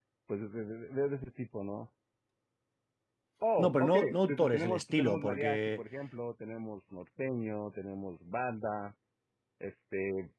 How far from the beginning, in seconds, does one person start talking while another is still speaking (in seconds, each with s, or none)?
3.6 s